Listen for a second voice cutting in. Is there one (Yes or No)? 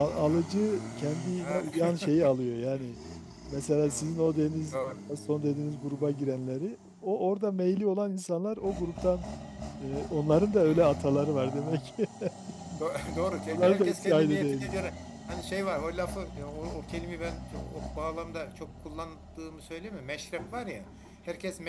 Yes